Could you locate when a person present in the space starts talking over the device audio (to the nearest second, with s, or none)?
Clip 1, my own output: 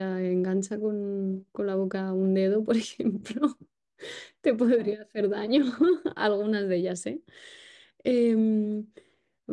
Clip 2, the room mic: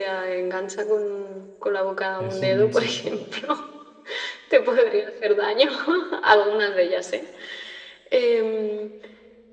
2 s